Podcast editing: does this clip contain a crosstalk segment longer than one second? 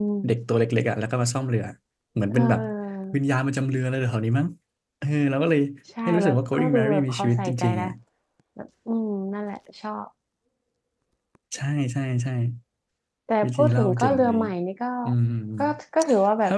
Yes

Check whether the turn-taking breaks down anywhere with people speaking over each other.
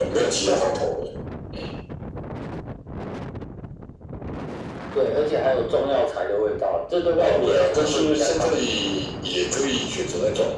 Yes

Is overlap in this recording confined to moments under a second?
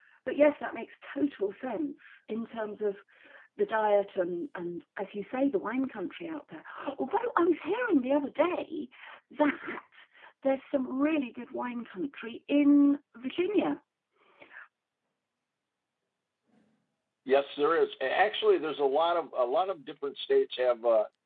Yes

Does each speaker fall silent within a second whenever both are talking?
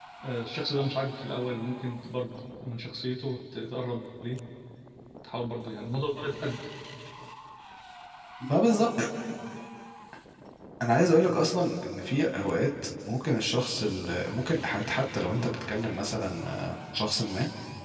Yes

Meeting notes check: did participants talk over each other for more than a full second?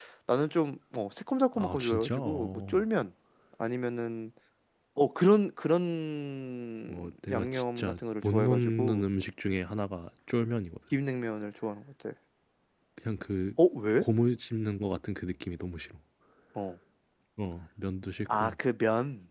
Yes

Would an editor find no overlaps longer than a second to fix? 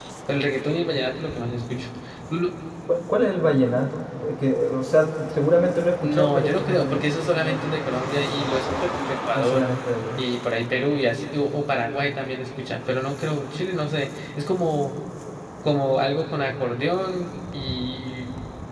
No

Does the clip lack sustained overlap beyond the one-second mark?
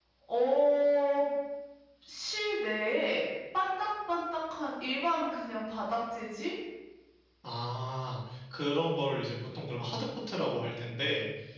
Yes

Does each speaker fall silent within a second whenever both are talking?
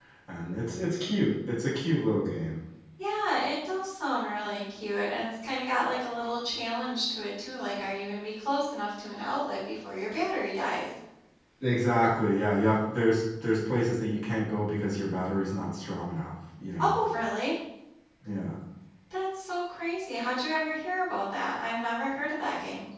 Yes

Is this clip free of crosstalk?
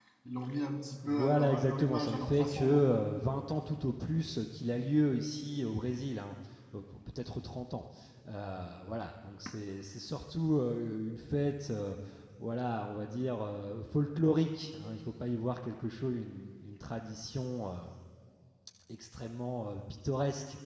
No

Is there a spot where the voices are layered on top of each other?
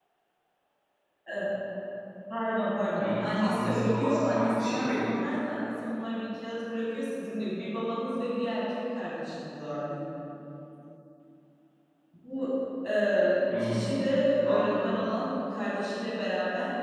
Yes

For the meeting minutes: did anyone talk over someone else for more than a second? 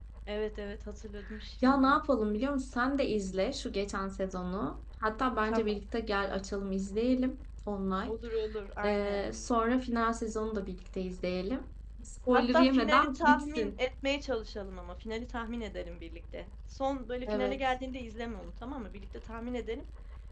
Yes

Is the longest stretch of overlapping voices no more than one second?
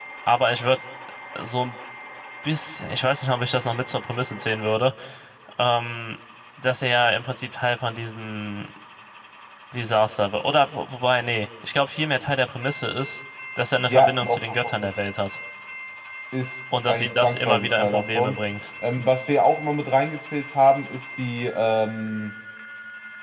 No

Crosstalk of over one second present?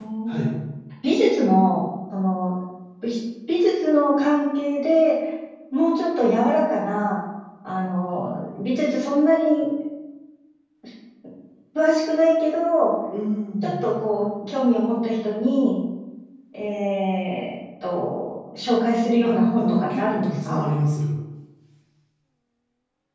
Yes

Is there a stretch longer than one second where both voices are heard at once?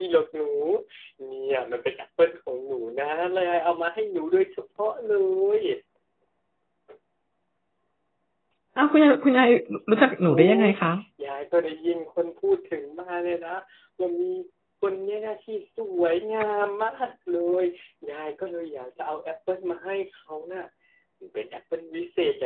No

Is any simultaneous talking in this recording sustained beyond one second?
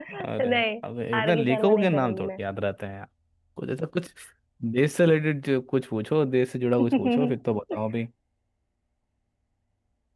Yes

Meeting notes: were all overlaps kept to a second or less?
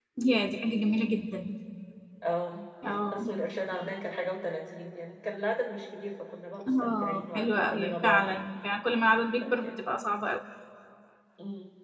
No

